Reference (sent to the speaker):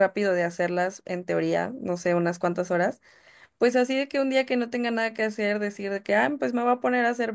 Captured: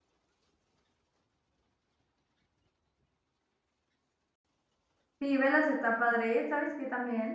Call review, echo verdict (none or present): none